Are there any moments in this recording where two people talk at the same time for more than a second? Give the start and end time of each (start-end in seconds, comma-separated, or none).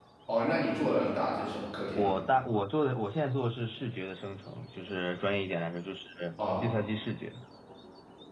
none